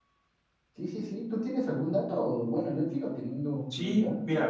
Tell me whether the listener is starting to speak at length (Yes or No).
Yes